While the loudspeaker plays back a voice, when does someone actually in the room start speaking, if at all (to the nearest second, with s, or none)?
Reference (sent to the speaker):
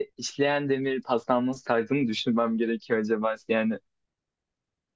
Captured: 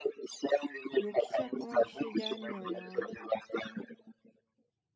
1 s